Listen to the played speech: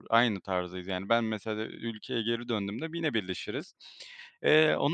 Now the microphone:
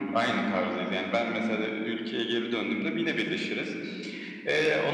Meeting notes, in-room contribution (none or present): none